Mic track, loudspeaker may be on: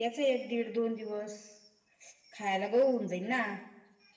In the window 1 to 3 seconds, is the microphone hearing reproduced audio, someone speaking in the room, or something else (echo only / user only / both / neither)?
echo only